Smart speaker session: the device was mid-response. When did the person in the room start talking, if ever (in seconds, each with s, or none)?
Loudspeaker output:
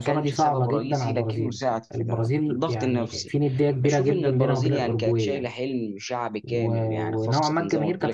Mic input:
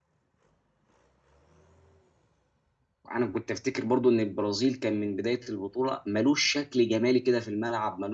3.1 s